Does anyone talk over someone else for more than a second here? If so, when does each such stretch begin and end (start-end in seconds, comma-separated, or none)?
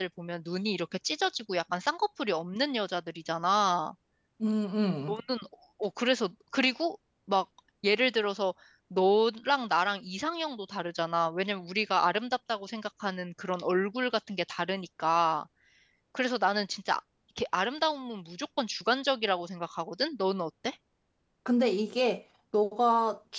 none